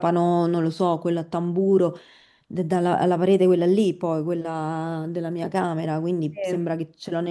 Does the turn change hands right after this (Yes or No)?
No